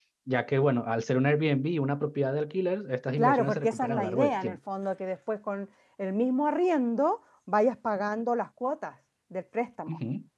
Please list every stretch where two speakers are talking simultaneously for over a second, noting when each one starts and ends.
3.2-4.6

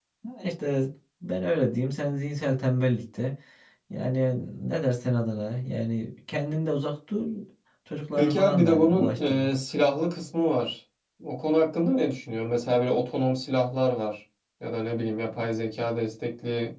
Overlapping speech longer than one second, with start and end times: 8.2-9.5

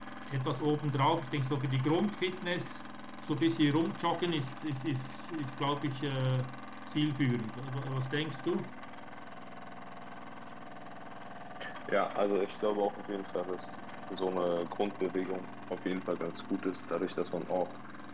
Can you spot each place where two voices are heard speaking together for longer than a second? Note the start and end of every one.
none

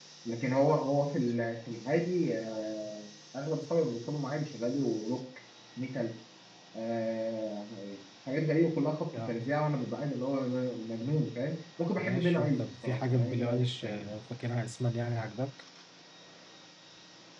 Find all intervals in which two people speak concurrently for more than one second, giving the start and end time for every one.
12.0-14.2

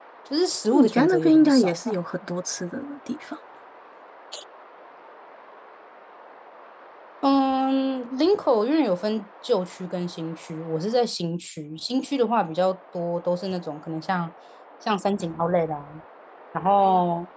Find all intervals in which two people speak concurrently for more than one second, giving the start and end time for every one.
0.7-1.9

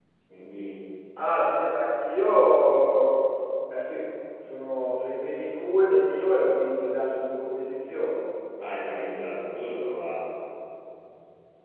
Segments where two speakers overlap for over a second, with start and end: none

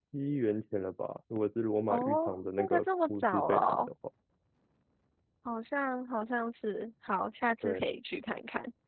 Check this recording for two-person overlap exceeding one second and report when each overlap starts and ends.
1.9-3.9

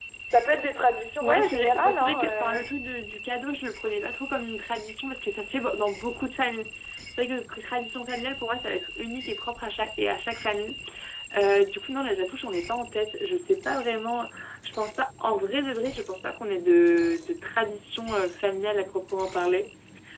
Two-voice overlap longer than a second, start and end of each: 1.2-2.6

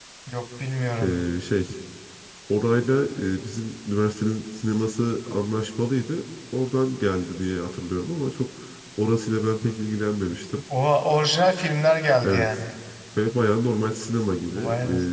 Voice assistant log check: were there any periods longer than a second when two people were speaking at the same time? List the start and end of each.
none

